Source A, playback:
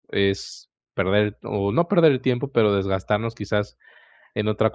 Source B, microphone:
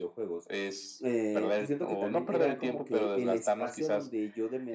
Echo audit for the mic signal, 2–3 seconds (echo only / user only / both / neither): both